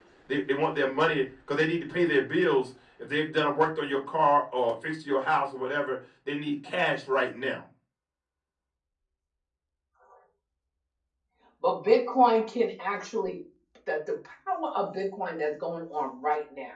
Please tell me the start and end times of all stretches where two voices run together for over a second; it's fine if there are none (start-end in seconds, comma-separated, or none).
none